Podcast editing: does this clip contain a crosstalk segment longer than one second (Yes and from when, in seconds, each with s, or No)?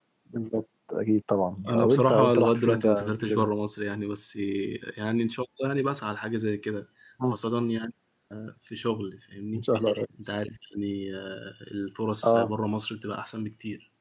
Yes, from 1.6 s